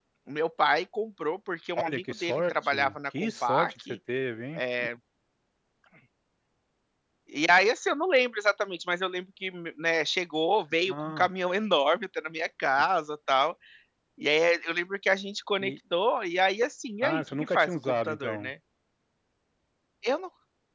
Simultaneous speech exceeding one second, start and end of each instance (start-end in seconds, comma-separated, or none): 1.8-4.0, 17.0-18.5